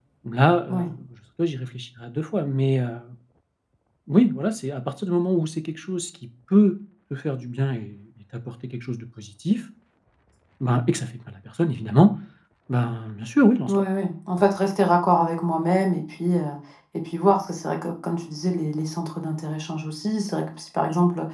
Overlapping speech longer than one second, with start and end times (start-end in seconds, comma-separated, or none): none